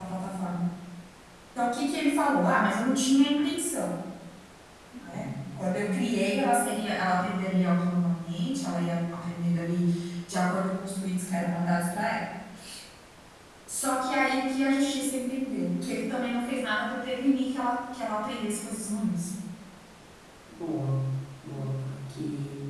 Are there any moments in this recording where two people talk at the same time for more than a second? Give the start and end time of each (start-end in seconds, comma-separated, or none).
none